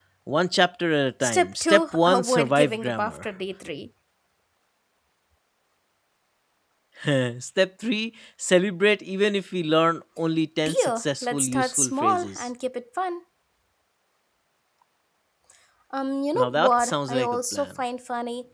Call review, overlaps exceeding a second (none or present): present